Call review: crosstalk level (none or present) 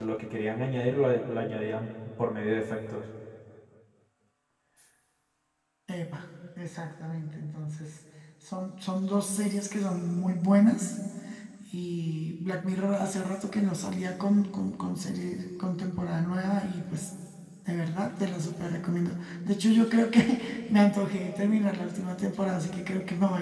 none